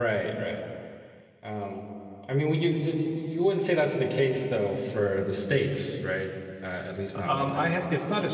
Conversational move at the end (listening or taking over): taking over